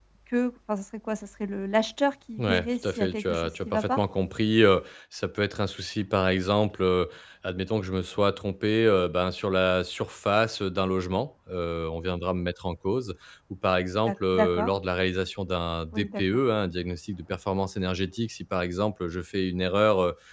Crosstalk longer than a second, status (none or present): present